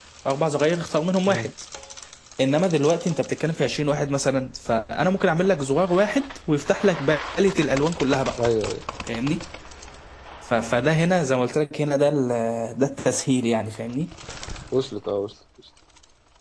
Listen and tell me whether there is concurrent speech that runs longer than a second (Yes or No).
No